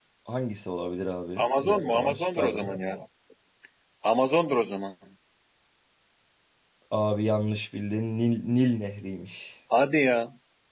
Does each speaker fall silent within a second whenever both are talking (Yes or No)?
No